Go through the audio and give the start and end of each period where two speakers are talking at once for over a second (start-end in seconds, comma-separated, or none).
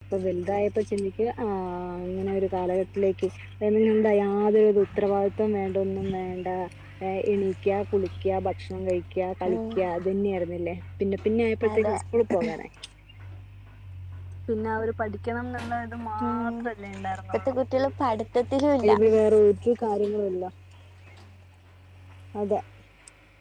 none